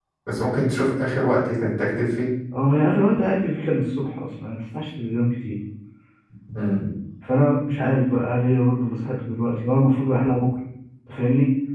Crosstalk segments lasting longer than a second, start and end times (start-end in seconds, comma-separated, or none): none